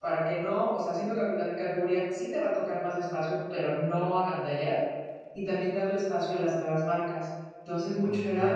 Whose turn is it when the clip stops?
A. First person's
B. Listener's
A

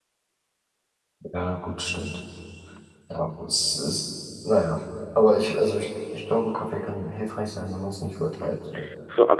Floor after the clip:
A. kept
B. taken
B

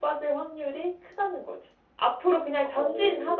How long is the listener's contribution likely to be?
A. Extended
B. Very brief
B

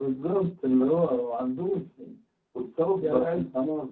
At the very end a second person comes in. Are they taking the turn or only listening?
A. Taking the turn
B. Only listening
B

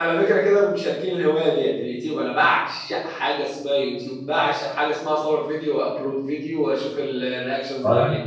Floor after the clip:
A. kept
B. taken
B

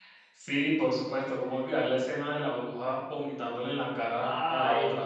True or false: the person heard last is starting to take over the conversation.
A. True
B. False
A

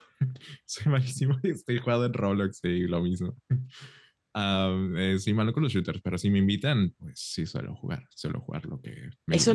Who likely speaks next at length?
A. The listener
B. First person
A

